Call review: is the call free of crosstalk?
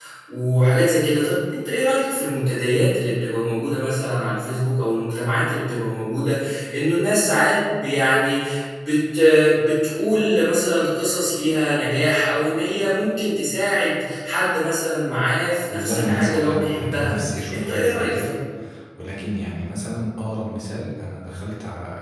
No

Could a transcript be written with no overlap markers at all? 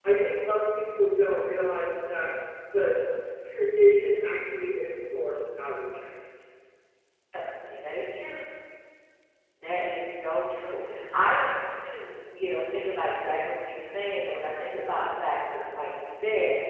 Yes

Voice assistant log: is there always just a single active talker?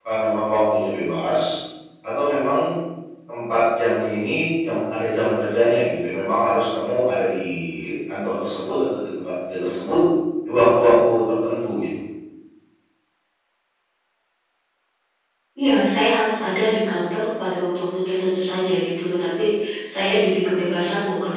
Yes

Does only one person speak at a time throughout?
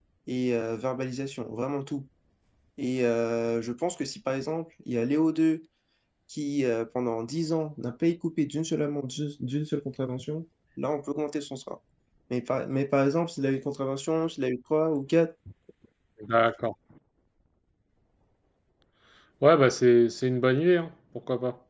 Yes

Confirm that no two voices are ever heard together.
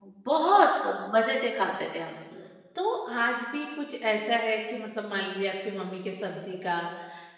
Yes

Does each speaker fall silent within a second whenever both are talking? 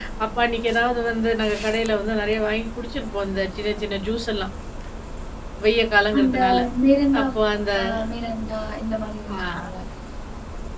Yes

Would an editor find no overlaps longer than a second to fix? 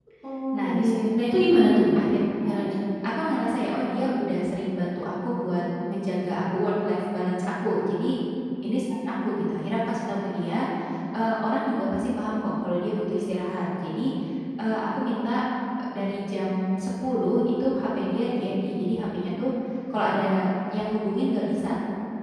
Yes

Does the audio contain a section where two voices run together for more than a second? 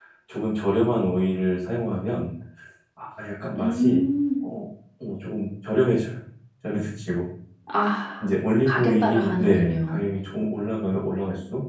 Yes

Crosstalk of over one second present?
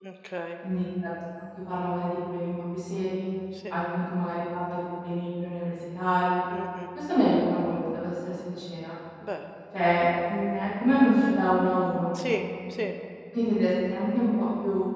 No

